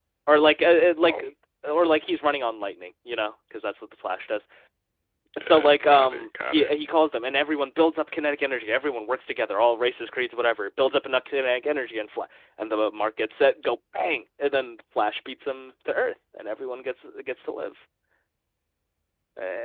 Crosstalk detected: Yes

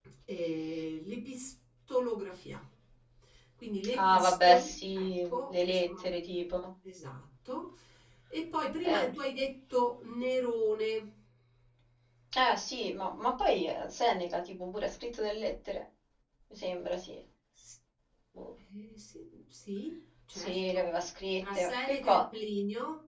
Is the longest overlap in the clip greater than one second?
Yes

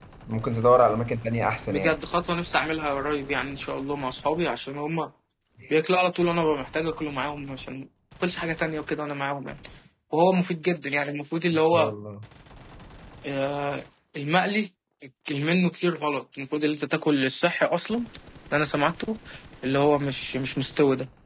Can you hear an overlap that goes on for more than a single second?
No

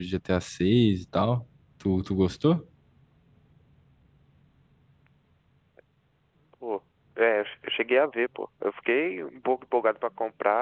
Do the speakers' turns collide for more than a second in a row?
No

